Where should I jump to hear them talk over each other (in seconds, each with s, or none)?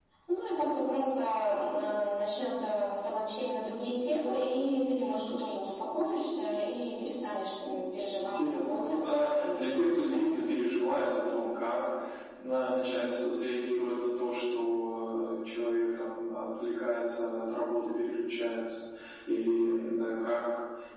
8.2 s